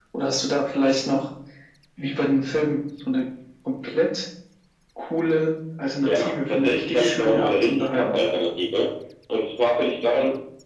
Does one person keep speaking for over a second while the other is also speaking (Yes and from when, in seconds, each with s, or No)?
Yes, from 6.0 s